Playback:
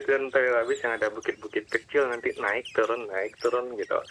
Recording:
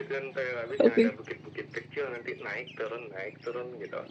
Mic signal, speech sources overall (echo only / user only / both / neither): both